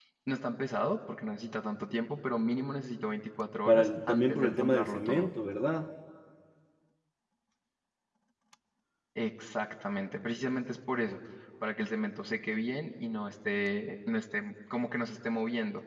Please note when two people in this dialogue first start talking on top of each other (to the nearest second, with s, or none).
4 s